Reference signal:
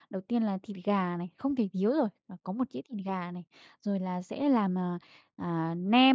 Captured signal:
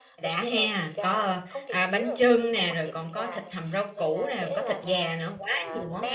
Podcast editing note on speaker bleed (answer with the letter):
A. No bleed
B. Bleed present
B